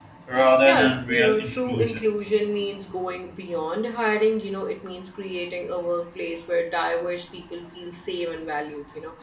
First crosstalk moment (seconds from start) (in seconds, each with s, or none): 0.7 s